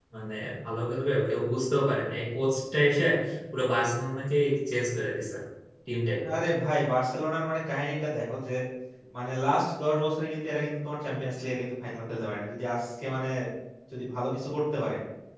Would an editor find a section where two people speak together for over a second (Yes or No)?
No